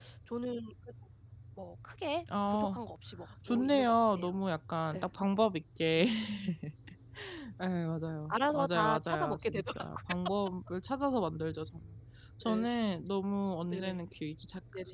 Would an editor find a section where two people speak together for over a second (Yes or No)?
Yes